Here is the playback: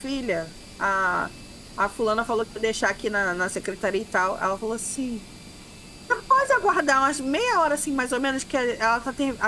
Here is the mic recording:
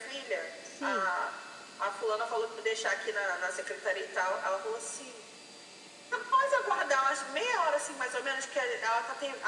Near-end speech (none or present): present